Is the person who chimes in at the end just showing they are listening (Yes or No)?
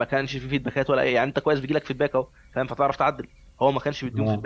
Yes